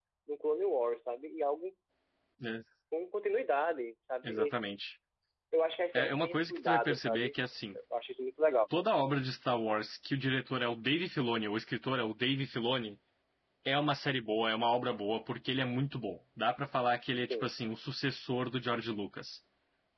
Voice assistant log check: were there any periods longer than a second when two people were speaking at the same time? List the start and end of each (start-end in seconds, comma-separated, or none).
5.9-7.3